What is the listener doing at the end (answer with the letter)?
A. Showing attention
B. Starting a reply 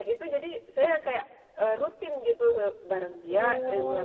A